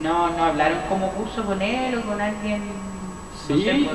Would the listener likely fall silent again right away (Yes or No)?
No